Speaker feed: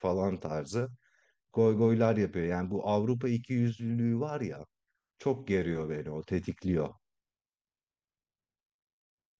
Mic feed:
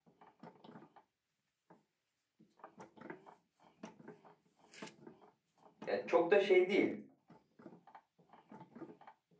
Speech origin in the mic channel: user only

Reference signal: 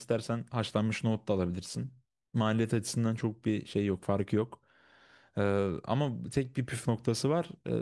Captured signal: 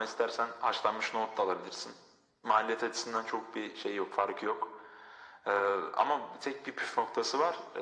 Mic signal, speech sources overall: echo only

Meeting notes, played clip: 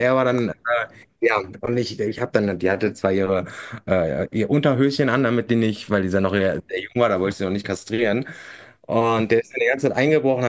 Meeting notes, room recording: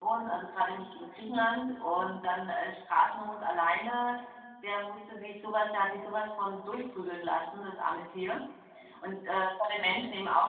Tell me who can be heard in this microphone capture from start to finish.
user only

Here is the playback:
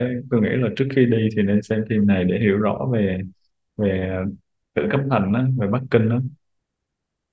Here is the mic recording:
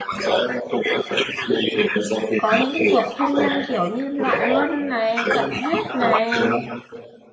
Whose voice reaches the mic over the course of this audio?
both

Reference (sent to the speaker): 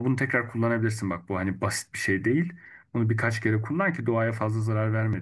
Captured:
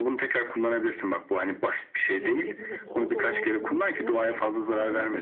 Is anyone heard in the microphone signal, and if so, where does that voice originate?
both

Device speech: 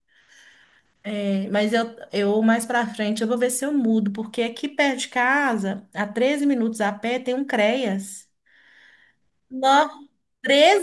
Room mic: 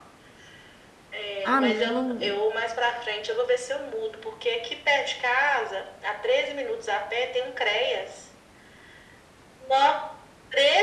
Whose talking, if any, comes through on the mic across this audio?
both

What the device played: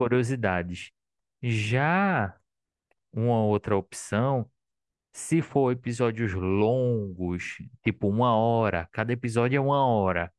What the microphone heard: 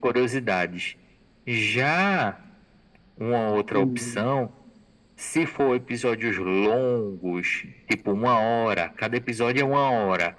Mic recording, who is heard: both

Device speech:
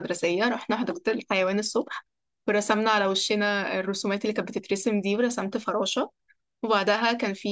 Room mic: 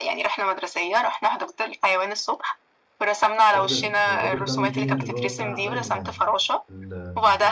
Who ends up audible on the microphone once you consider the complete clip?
both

